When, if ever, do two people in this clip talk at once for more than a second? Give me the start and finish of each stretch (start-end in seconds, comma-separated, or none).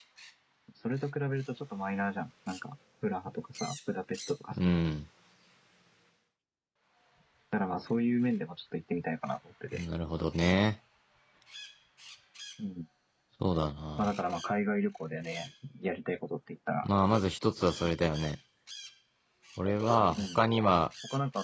none